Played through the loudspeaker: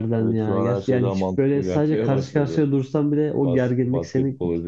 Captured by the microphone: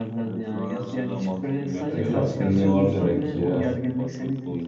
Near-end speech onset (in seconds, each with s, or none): 1.9 s